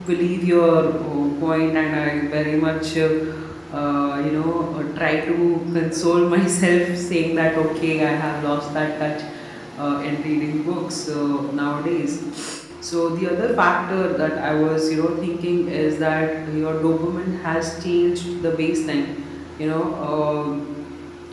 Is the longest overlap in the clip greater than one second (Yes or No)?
No